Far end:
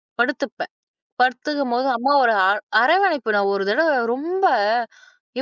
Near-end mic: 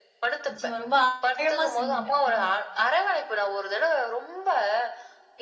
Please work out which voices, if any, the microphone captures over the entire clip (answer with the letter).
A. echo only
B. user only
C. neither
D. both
D